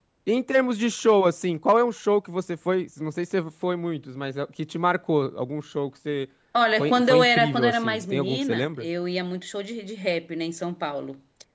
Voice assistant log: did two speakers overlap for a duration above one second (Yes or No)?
Yes